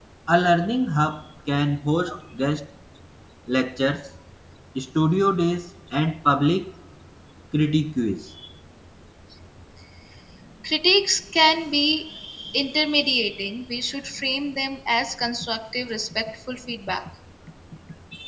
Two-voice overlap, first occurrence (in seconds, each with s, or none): none